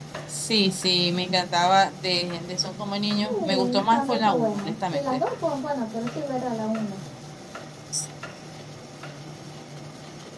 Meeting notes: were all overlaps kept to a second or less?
No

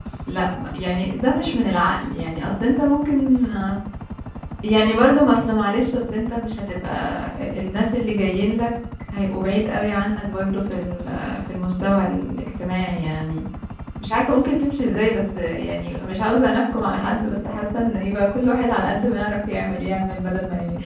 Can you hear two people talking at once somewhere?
No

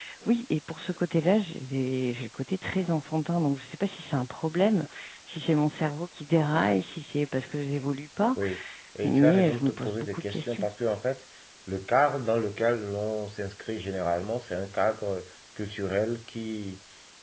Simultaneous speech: Yes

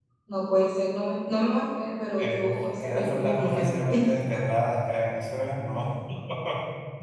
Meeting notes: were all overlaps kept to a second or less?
No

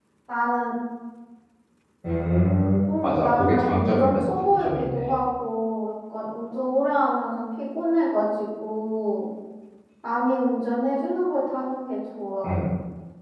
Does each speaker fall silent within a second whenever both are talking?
No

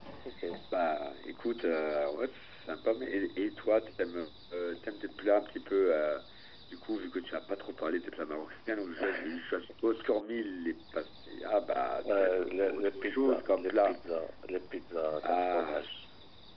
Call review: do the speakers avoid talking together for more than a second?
No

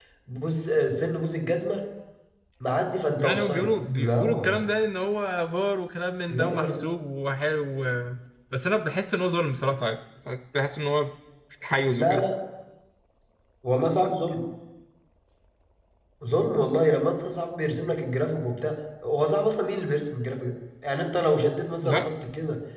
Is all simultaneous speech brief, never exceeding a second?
No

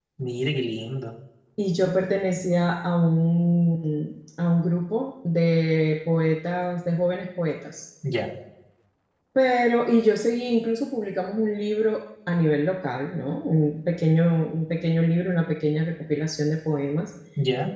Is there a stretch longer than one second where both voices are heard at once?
No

